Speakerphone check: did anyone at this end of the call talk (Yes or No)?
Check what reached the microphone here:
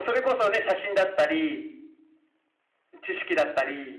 No